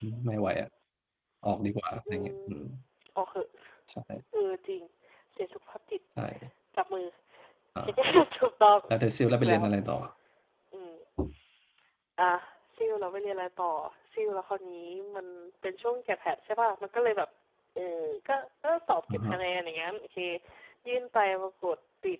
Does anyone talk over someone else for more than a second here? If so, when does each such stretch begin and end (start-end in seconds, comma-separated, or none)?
none